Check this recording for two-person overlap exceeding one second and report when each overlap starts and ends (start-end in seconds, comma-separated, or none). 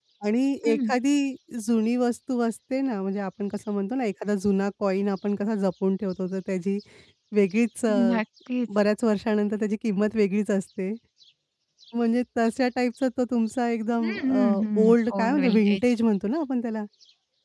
14.0-15.8